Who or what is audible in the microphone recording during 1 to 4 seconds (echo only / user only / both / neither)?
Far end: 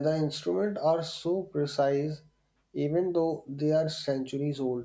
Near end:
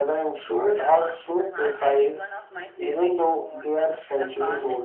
both